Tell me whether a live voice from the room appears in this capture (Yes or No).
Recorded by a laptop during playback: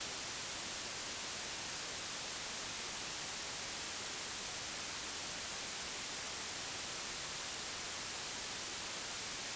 No